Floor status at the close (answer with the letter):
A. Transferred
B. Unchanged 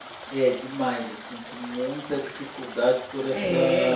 B